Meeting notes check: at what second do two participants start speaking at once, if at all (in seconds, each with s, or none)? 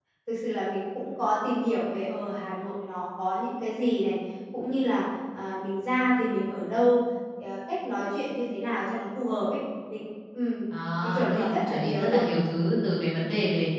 11.0 s